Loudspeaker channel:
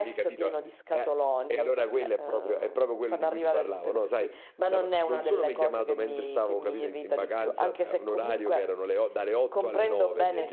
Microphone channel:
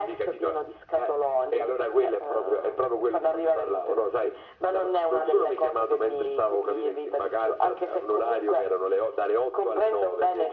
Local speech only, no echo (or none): none